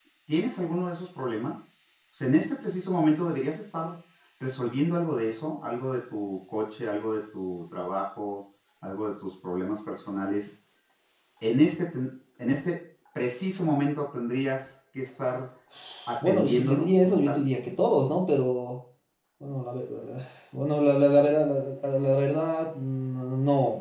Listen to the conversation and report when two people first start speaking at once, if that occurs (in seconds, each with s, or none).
16.2 s